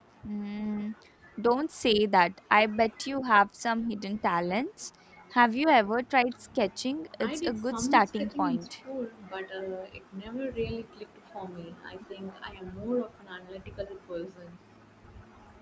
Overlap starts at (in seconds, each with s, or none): 7.2 s